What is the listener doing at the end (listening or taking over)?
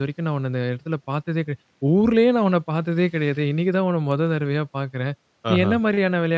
listening